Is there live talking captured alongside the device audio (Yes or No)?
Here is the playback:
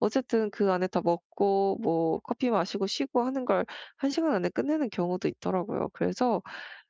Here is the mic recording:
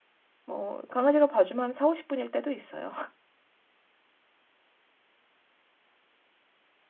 Yes